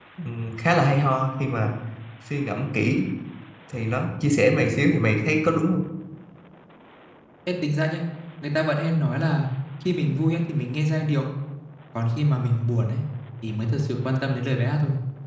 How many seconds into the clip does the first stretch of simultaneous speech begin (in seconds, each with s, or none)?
none